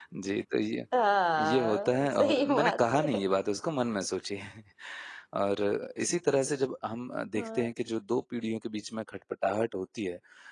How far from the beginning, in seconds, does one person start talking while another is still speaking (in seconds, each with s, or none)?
1.4 s